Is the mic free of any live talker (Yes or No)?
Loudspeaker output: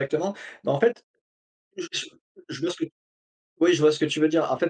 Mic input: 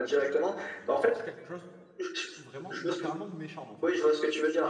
No